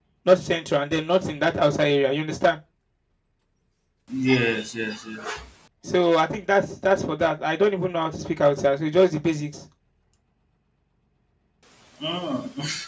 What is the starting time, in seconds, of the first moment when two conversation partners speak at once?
none

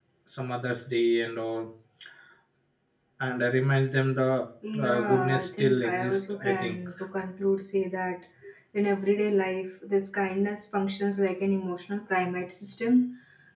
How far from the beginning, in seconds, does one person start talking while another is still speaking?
4.6 s

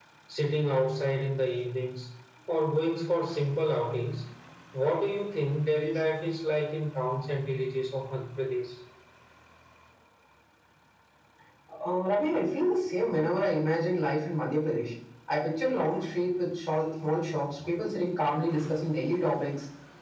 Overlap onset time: none

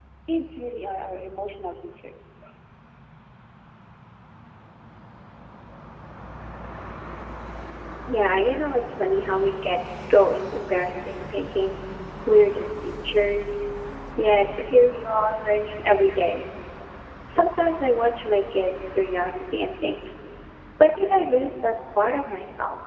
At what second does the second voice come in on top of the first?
none

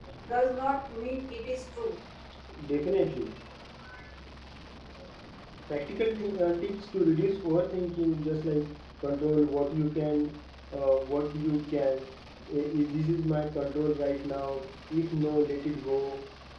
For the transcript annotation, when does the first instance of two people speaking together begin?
none

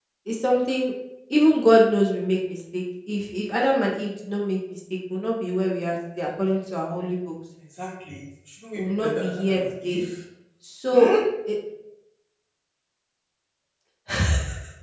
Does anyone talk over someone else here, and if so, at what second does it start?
8.8 s

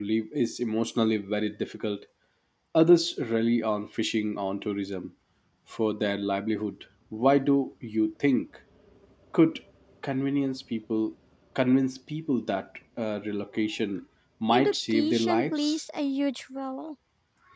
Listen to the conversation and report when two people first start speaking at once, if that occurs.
14.5 s

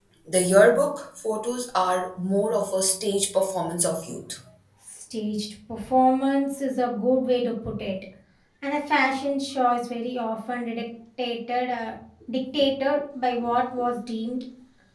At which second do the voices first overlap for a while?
none

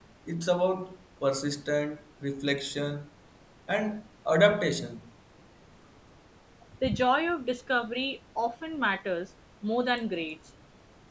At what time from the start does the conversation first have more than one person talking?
none

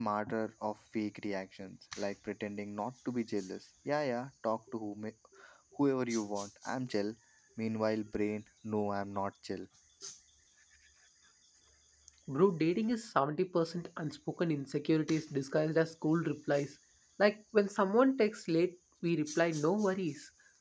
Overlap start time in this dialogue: none

